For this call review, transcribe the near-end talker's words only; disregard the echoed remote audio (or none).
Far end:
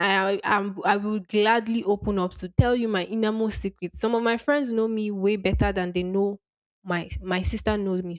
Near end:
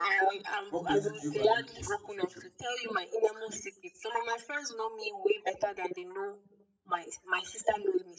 What quality do you value most in a friendship?